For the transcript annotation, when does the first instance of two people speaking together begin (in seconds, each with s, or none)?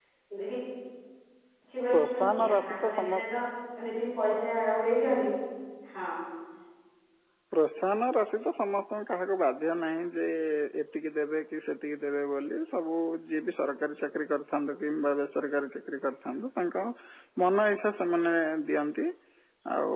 1.9 s